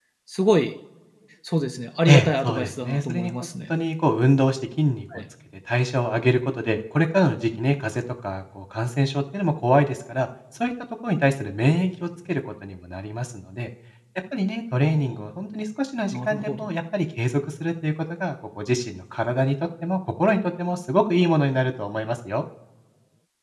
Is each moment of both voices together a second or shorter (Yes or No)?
No